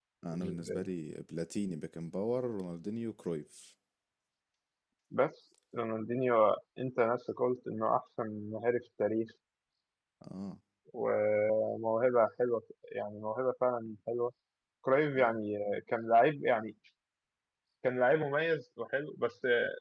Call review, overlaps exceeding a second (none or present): none